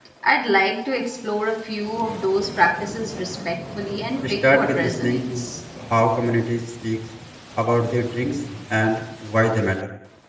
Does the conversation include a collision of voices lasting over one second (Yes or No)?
Yes